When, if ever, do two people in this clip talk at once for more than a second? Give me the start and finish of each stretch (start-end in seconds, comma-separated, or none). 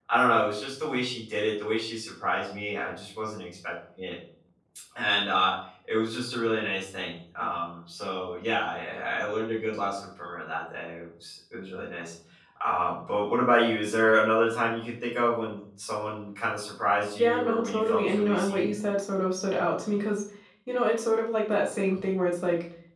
17.2-18.7